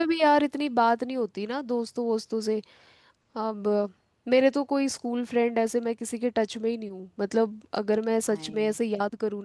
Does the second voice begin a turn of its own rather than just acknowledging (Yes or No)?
No